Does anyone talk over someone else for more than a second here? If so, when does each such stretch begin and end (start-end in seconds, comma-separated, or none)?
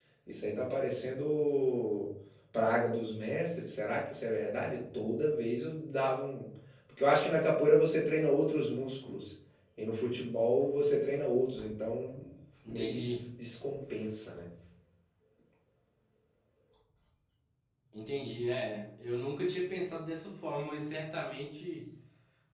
none